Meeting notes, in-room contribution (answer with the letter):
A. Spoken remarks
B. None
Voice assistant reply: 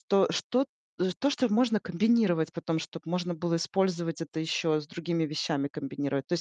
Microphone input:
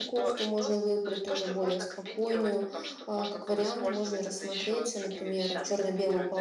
A